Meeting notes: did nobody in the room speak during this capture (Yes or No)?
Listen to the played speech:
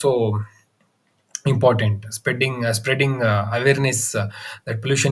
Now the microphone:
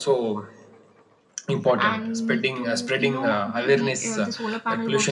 No